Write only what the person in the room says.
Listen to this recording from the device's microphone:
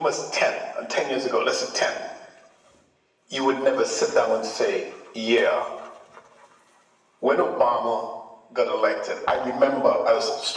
none

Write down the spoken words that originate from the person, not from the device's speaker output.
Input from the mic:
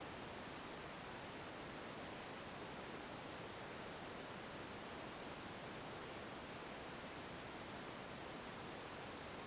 none

